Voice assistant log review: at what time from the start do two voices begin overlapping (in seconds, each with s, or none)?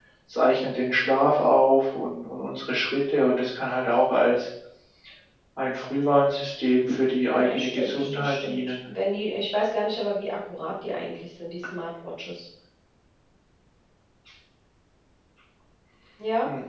7.3 s